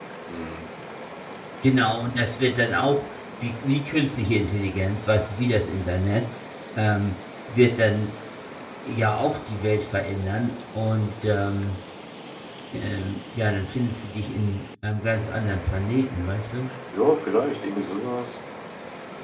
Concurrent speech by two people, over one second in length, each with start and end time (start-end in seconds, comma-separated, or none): none